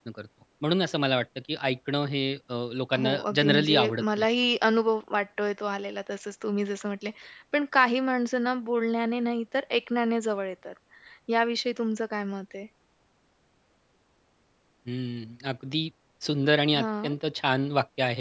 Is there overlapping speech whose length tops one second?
Yes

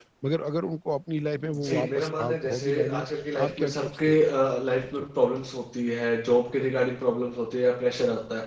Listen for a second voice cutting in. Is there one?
Yes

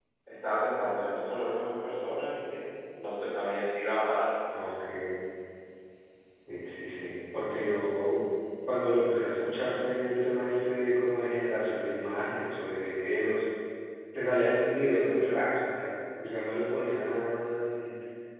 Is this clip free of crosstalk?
Yes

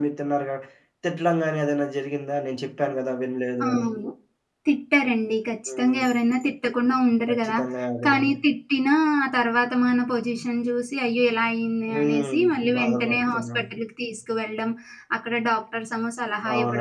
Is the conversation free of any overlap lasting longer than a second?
No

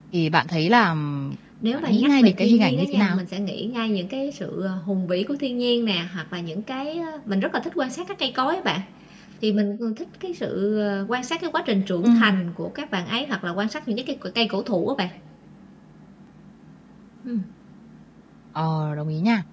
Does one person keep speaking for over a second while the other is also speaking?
Yes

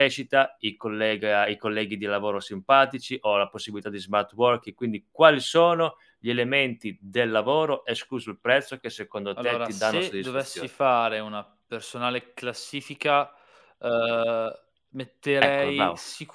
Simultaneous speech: Yes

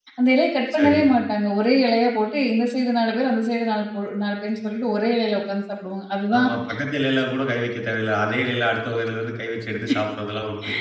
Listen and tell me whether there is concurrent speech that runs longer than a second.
No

